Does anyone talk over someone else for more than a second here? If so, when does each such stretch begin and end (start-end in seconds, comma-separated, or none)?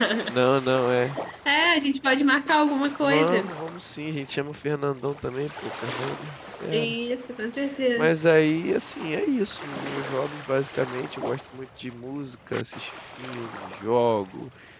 none